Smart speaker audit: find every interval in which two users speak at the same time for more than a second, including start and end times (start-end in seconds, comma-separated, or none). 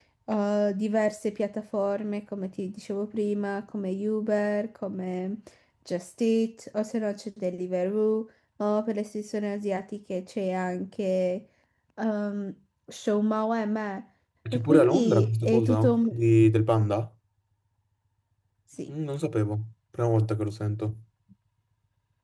14.5-16.0